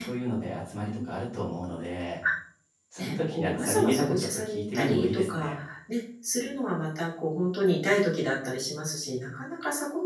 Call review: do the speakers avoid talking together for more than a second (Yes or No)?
No